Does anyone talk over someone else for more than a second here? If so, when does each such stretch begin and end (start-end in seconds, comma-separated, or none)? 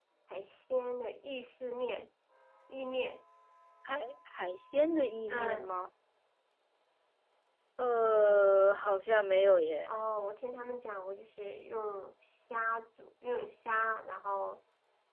none